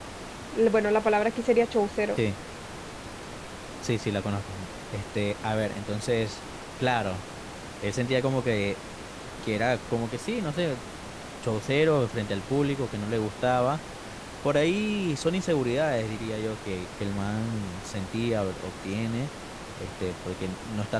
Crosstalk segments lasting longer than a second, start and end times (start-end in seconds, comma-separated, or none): none